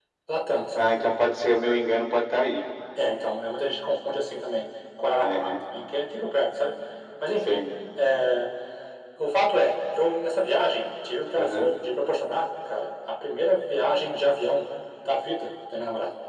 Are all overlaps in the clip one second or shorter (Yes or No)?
Yes